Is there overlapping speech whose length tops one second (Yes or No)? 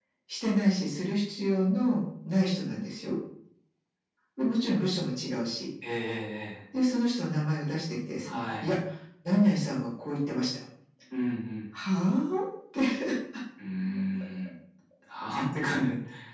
No